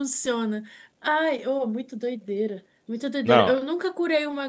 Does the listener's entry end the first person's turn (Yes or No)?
No